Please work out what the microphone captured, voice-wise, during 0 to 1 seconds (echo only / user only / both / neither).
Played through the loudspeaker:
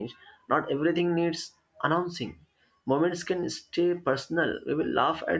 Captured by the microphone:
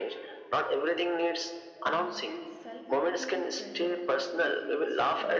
echo only